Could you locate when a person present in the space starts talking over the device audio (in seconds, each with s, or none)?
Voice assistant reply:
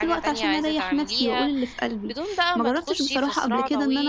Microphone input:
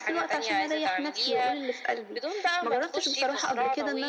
none